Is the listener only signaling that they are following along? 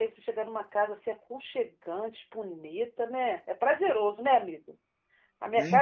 Yes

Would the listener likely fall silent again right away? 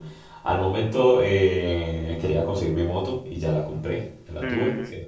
Yes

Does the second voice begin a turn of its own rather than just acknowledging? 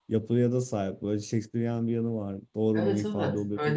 Yes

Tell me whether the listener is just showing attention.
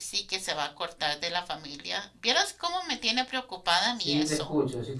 No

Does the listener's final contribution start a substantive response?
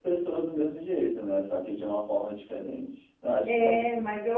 Yes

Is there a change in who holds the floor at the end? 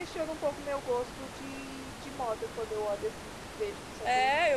Yes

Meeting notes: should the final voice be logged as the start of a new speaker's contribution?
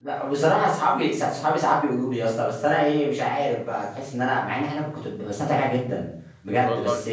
No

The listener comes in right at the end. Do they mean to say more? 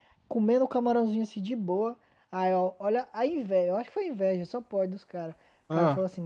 No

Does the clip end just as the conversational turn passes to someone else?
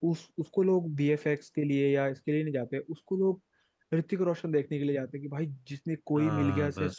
No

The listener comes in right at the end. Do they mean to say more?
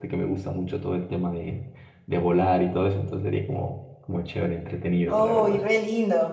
Yes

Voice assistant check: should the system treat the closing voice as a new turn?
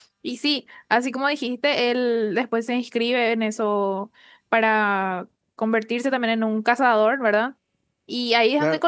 No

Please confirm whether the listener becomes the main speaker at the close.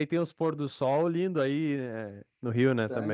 Yes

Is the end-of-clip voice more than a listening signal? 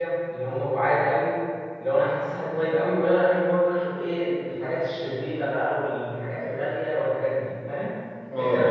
No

